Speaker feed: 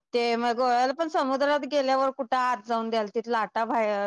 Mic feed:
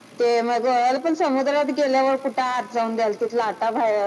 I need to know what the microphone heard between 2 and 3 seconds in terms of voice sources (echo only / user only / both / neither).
echo only